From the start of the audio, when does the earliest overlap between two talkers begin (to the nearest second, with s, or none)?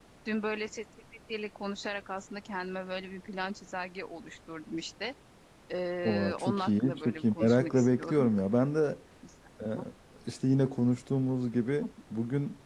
6 s